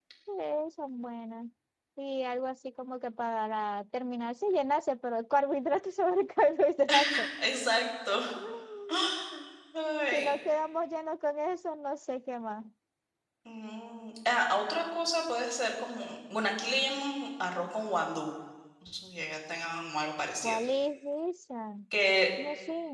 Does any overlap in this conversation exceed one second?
No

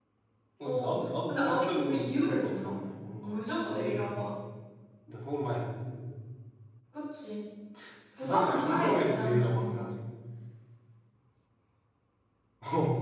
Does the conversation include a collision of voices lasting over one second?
Yes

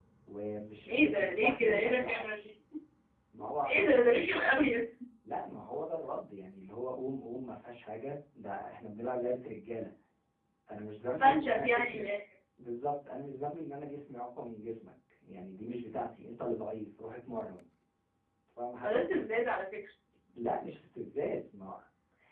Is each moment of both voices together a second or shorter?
No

